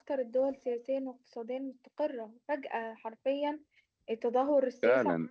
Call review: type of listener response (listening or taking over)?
taking over